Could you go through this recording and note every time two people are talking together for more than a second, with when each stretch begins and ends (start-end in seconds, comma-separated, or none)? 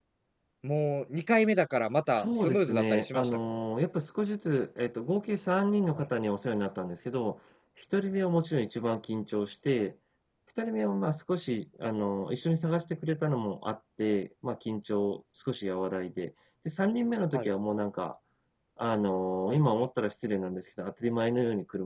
2.1-3.4